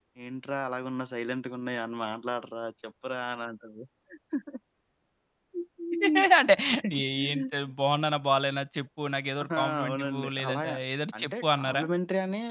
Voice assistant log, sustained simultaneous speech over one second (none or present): present